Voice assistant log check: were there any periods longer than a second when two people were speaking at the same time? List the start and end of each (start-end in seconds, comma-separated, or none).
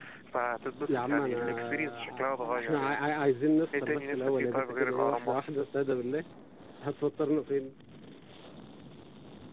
0.9-3.0, 3.8-5.3